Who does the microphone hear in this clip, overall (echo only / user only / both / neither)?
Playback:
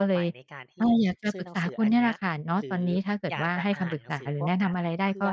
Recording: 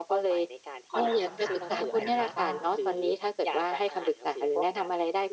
both